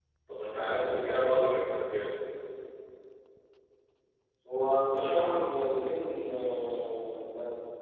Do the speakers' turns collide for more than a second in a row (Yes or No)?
No